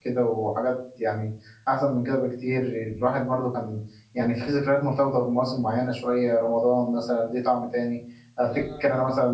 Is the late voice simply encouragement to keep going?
Yes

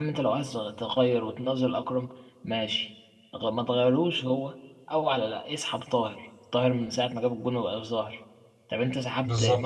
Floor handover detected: No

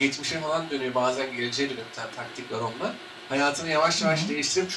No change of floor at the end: Yes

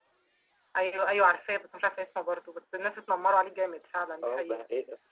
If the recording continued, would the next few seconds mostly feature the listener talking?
Yes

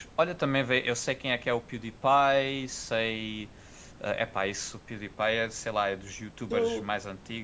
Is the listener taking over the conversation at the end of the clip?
No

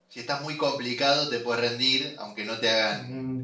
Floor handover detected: Yes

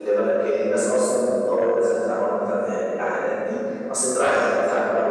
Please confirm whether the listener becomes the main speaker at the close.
No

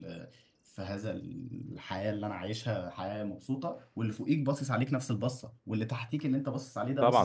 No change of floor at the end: No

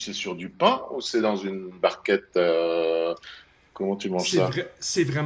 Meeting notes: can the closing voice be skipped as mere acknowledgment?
No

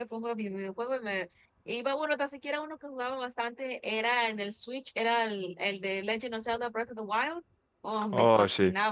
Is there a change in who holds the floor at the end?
No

